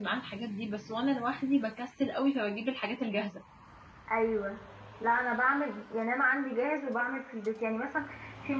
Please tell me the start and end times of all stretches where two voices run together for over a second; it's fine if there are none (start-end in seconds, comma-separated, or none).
none